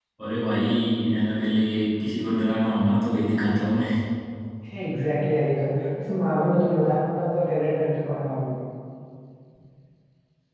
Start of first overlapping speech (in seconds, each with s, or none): none